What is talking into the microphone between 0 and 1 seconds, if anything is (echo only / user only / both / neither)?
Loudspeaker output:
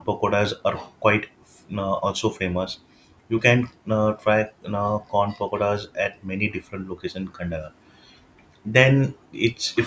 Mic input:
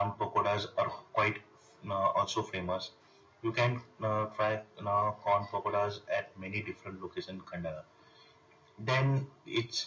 echo only